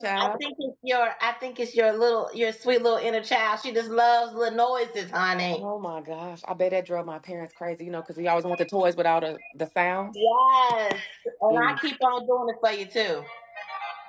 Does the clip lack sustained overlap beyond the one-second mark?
Yes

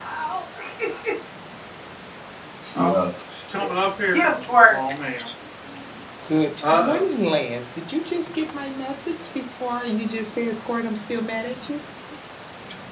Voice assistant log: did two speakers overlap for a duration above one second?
No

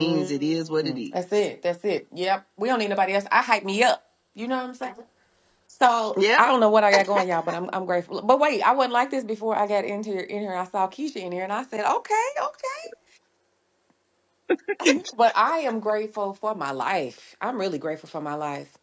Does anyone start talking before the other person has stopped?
Yes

